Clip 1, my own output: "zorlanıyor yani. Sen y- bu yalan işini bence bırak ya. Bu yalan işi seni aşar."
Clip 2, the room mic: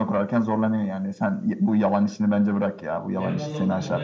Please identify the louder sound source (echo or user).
echo